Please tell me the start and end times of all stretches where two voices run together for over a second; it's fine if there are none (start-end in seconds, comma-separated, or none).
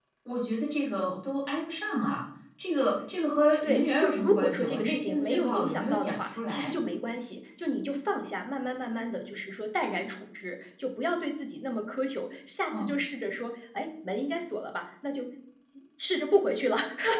3.6-6.7